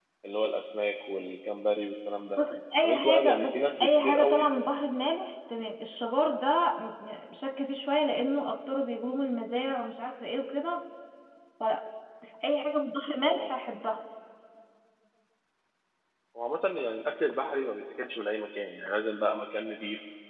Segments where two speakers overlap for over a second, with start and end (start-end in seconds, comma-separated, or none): 2.8-4.5